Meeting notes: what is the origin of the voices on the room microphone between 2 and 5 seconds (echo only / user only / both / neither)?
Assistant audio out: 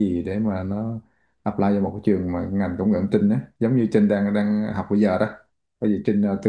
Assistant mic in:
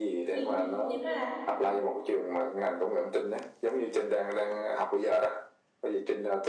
echo only